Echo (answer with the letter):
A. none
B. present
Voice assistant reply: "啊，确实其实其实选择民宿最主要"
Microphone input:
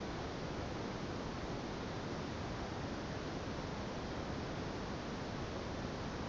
A